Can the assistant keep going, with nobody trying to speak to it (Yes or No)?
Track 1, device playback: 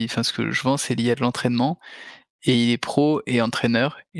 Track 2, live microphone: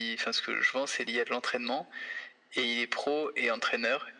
Yes